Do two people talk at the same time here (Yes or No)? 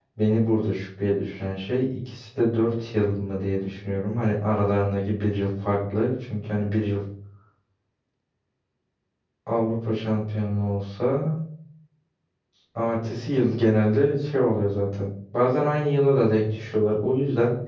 No